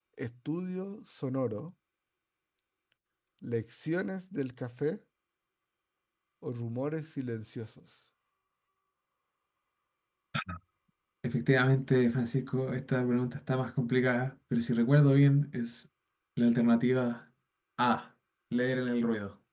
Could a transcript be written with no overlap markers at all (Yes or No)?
Yes